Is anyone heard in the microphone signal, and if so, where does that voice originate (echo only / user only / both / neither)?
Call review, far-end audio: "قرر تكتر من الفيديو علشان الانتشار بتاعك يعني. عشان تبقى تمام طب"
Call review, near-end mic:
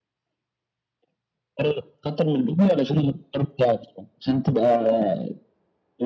echo only